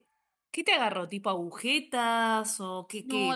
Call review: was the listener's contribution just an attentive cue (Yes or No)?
No